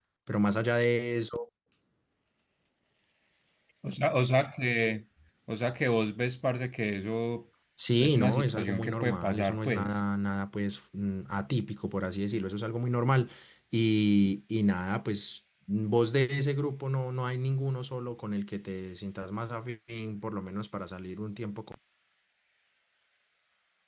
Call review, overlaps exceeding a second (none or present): present